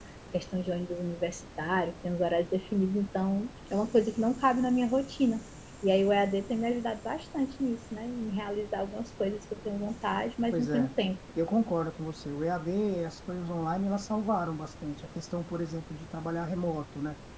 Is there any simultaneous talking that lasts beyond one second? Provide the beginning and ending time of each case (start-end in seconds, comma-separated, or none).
none